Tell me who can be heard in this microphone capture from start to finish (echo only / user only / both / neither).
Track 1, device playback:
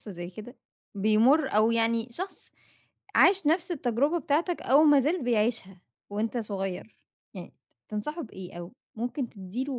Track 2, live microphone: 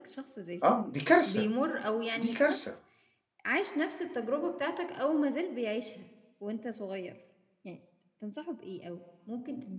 both